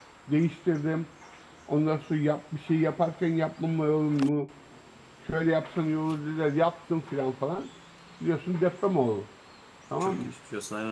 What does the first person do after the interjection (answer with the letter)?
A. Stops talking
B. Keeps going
A